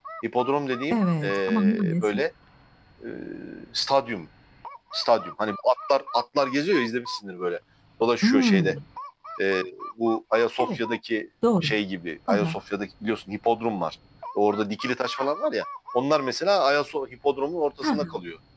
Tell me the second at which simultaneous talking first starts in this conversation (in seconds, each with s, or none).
0.9 s